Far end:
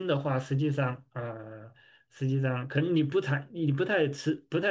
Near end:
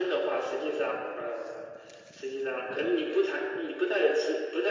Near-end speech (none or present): none